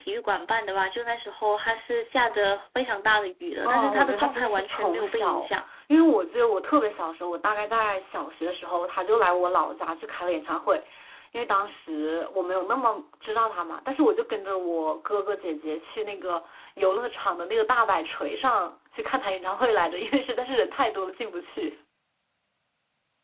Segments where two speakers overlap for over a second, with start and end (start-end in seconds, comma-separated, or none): 3.6-5.5